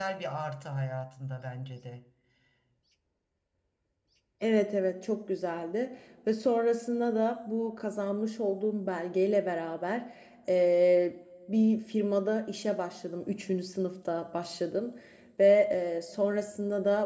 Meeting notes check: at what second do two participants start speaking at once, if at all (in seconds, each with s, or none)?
none